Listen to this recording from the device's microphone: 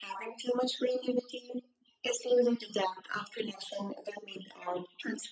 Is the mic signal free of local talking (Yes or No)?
Yes